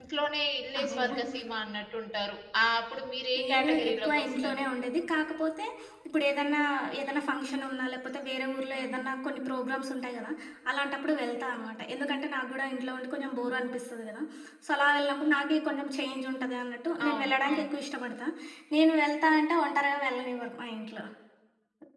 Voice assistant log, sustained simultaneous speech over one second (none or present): present